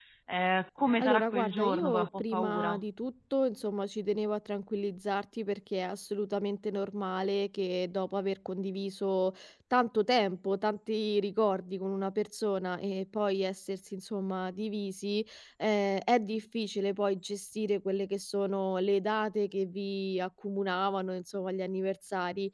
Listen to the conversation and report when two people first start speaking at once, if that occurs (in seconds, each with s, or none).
1.0 s